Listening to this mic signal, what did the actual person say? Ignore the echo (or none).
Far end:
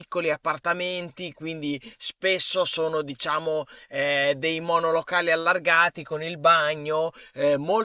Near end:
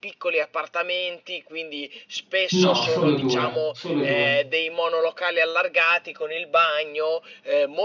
No, solo due, solo due.